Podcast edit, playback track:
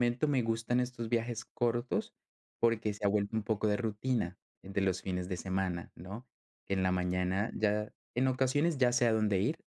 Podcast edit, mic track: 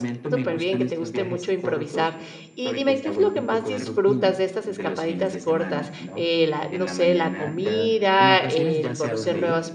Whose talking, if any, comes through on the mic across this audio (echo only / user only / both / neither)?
both